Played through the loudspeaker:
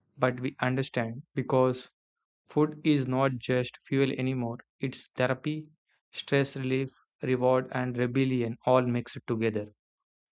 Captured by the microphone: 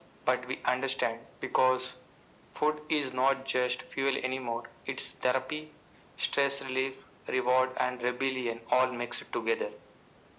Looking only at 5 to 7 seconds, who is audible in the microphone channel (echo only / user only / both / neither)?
echo only